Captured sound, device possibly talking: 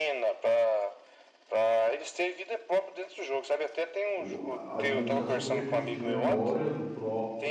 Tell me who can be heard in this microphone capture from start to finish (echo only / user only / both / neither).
both